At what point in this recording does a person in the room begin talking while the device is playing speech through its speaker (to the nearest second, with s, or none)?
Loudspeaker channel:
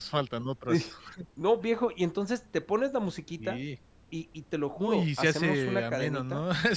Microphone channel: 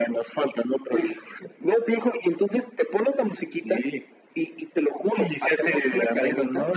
none